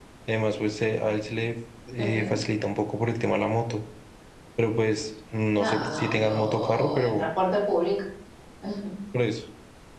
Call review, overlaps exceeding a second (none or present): present